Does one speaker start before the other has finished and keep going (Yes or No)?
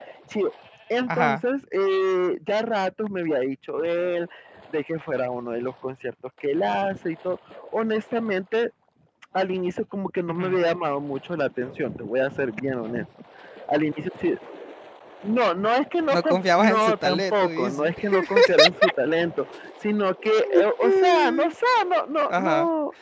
Yes